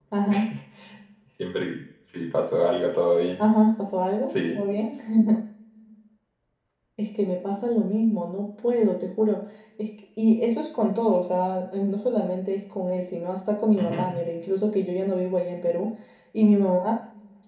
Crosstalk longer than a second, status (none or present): none